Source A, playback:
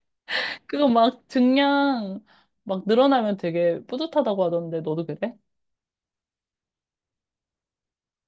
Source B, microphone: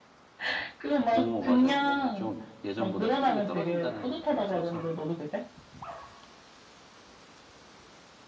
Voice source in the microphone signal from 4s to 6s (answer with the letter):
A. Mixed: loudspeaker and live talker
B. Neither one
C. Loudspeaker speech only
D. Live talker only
A